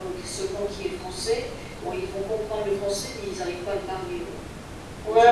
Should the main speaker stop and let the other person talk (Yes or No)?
Yes